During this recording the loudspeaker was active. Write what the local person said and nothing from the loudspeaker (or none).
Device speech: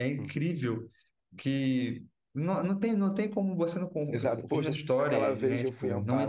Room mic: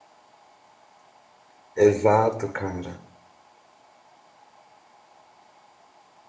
Exato, cara.